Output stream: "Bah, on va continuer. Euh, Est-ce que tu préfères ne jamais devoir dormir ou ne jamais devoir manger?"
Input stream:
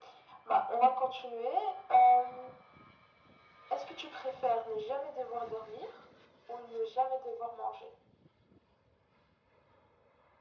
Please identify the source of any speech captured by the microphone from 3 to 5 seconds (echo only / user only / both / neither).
echo only